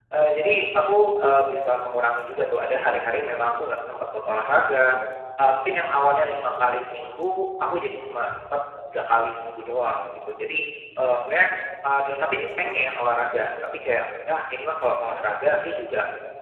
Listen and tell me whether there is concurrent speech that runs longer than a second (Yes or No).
No